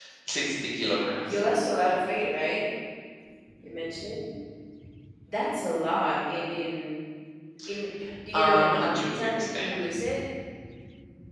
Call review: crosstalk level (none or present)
present